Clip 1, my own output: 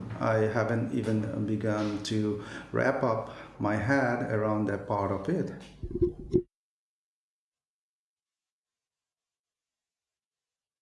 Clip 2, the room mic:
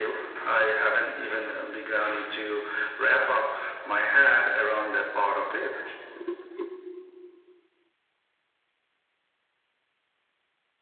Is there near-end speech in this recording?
No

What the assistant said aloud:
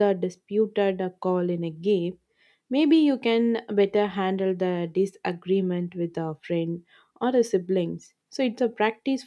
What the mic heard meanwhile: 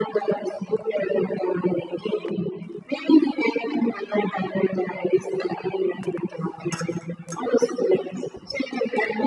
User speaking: No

